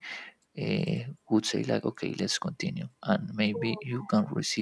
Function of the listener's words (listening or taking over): listening